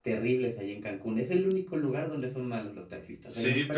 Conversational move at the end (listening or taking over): taking over